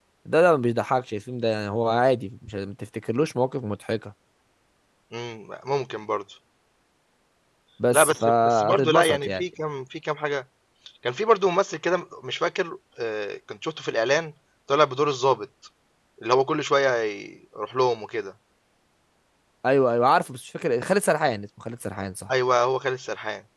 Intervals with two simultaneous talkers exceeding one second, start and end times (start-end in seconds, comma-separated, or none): 7.9-9.4